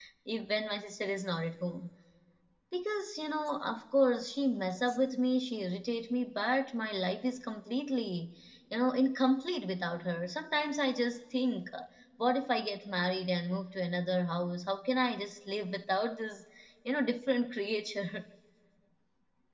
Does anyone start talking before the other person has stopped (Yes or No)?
No